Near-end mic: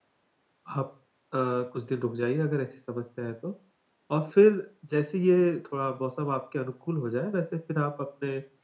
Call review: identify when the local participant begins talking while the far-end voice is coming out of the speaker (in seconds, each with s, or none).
0.8 s